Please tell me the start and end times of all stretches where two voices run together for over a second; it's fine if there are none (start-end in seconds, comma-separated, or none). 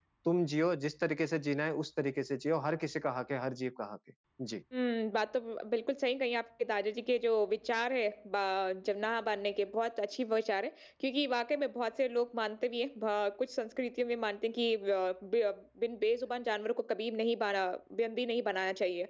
none